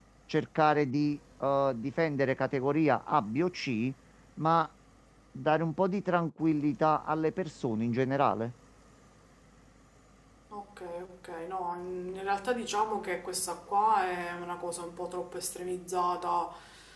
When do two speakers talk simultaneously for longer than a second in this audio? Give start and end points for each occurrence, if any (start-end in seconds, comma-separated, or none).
none